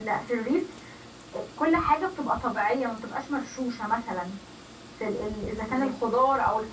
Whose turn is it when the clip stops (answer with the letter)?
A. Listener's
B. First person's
B